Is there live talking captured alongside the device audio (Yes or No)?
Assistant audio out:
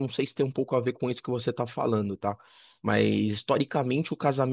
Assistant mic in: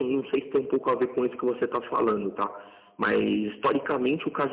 No